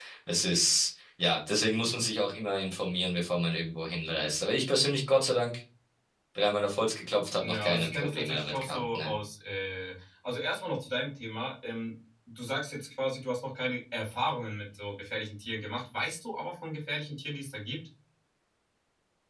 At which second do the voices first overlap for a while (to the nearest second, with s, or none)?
7 s